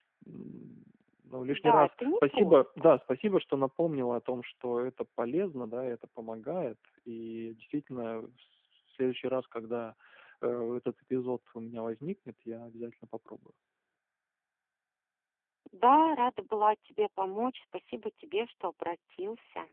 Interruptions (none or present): present